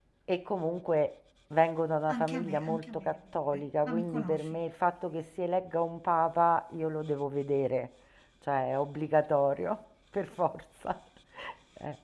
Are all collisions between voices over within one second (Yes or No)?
No